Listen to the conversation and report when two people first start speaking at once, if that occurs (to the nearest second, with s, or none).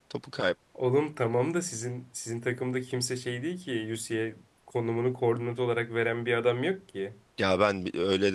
none